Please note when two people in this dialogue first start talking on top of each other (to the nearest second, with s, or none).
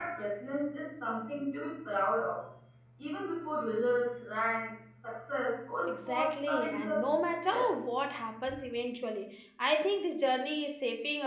6 s